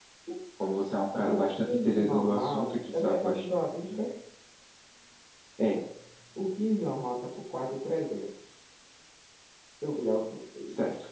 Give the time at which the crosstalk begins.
1.3 s

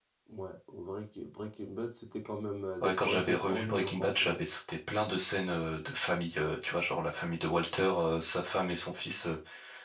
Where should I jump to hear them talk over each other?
2.8 s

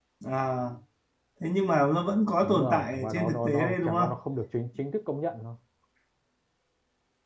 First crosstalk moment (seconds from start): 2.4 s

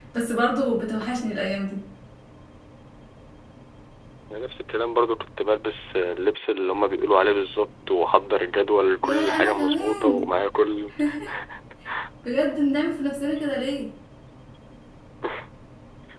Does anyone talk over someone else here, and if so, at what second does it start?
9.0 s

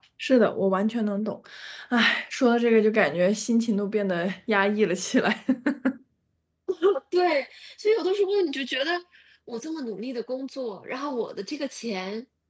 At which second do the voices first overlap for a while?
none

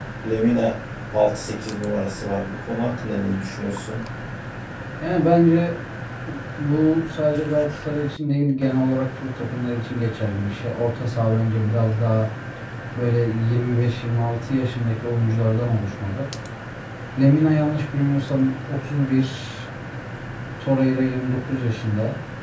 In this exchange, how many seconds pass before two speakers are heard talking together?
none

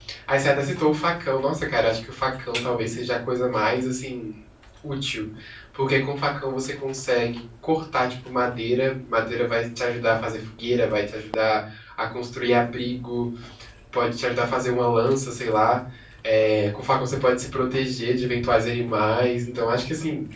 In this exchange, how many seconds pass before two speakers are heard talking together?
none

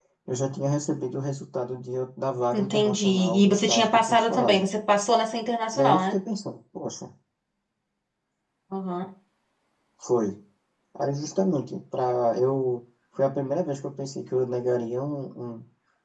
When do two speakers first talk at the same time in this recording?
2.5 s

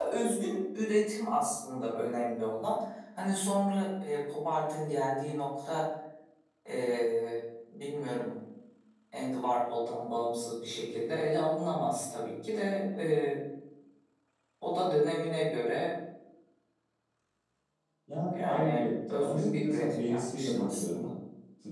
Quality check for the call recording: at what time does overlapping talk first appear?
18.4 s

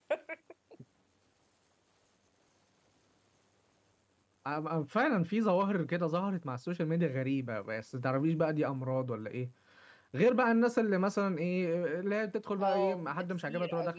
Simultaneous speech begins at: 12.6 s

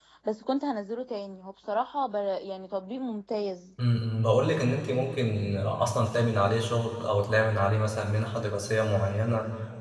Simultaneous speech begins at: none

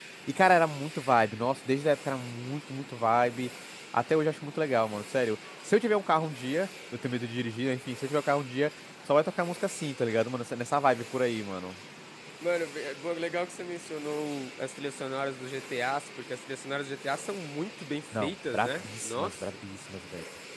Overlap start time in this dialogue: 18.1 s

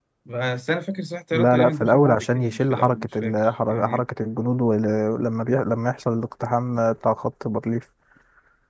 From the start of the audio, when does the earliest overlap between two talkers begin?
1.3 s

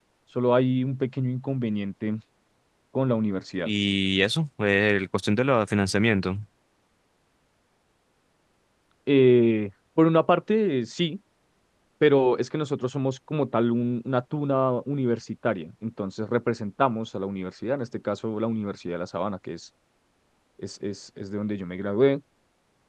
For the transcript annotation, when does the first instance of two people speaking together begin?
none

